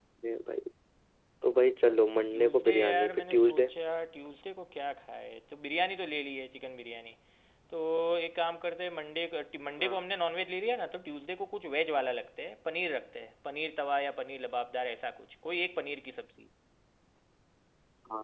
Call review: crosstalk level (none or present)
present